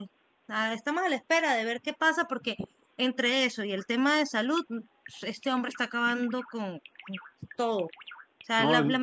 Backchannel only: Yes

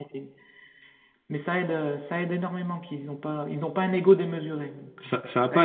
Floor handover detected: Yes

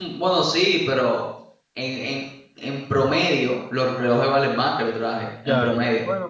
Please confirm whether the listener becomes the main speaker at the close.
Yes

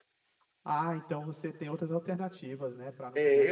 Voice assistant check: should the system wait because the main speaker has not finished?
No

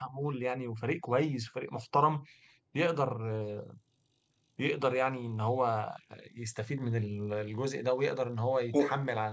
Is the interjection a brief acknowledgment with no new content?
Yes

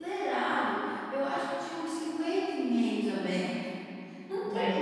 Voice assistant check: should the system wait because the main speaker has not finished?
No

